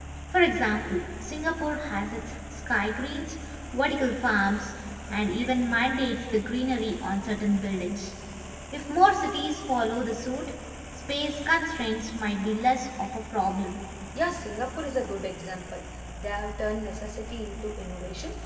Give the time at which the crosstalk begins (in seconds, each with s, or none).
none